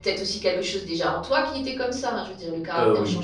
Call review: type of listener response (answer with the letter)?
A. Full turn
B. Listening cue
B